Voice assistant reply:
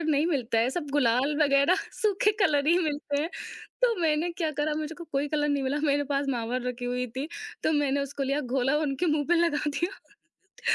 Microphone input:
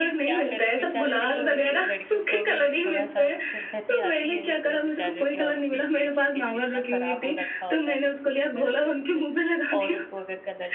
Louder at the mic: echo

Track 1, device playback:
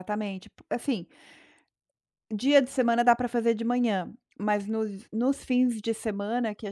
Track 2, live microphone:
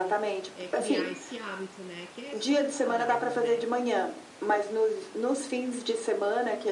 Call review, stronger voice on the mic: echo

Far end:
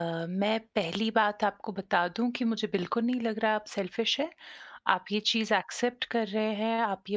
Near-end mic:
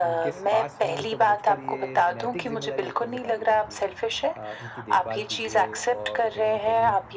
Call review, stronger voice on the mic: echo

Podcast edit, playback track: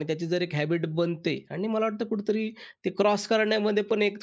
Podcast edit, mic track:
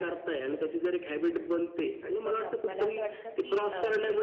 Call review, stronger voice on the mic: echo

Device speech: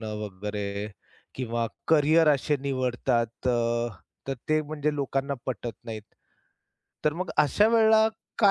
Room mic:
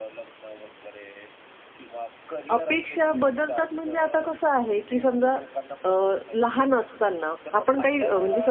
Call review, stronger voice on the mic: user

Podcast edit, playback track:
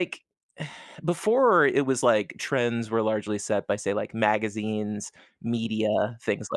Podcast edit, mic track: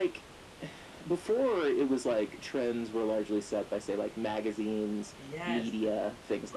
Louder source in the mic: echo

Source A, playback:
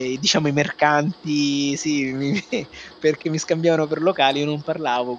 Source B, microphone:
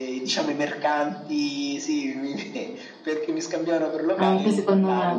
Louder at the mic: user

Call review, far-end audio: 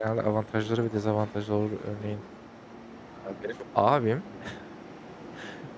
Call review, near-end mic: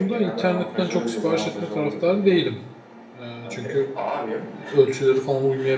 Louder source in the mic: user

